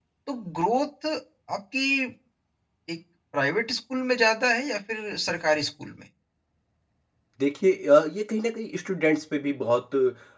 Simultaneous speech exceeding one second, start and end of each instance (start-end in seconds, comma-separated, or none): none